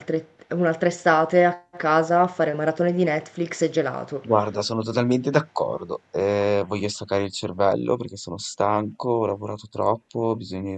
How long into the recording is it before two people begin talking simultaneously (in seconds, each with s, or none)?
none